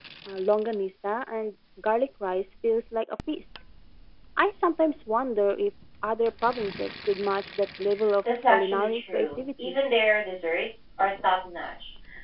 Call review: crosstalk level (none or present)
present